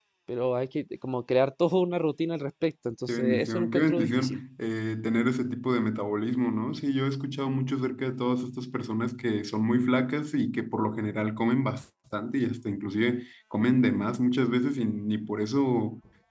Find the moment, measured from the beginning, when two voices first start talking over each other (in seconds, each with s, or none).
3.1 s